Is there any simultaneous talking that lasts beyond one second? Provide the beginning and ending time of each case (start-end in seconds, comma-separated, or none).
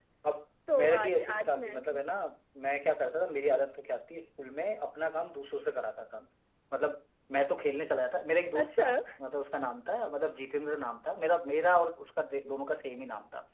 0.7-2.0